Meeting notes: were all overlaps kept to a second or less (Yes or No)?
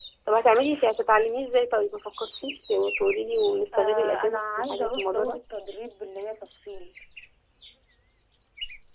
No